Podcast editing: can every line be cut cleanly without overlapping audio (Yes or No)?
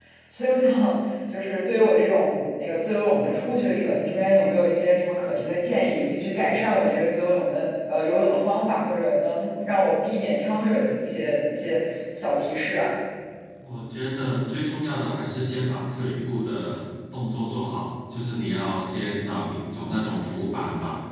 Yes